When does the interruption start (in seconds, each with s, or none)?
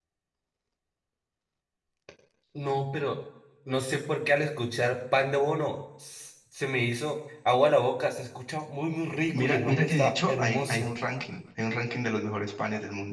9.3 s